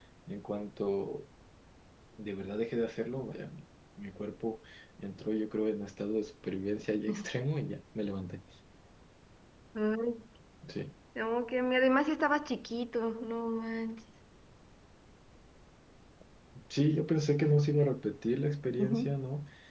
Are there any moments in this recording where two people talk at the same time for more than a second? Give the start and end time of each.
none

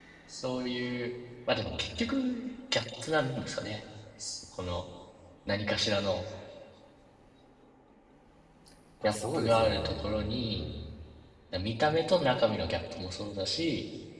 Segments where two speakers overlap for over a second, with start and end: 9.0-10.6

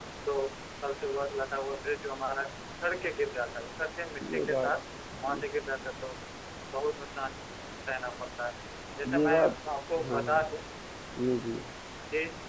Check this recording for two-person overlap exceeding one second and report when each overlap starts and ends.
none

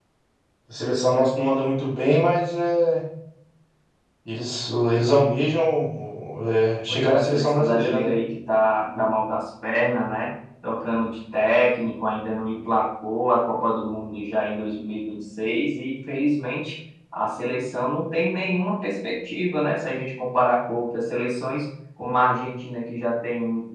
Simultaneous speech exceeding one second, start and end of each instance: 6.9-8.1

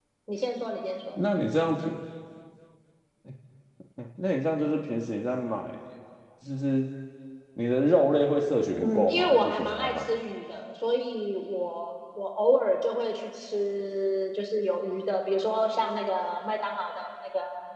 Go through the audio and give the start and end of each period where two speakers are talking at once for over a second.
8.8-10.1

